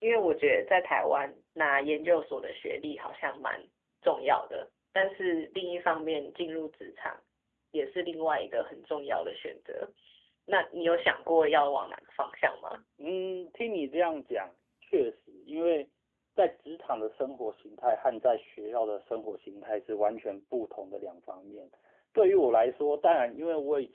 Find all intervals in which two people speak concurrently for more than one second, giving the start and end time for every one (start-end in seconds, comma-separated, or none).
none